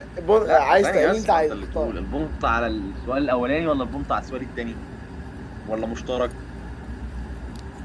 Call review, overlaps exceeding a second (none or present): present